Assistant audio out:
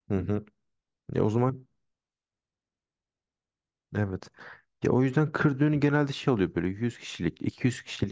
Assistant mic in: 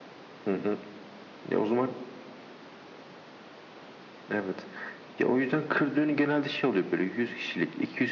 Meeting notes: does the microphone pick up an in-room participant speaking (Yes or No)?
No